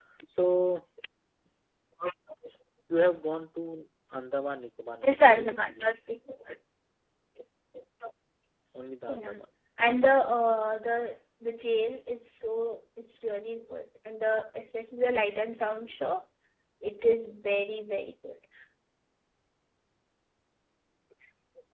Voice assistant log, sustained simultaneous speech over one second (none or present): none